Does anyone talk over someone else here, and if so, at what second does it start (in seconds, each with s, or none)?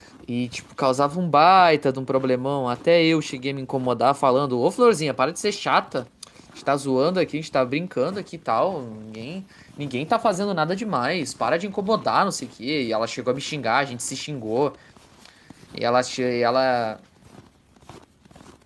none